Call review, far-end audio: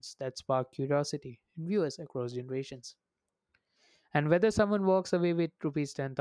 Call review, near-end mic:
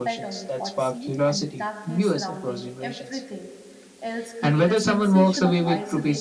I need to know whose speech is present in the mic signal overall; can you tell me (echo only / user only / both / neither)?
both